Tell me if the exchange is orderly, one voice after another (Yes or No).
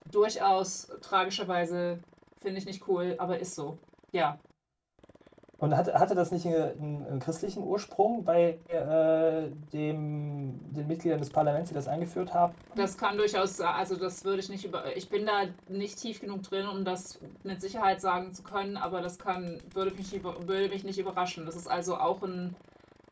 Yes